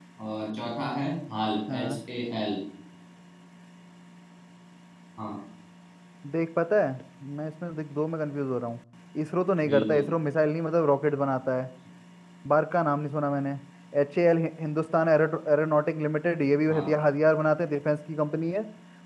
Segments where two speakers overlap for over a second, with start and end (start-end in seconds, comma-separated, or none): none